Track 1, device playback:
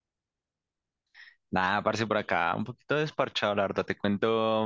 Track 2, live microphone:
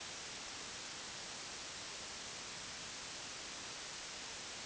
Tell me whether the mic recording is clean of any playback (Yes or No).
Yes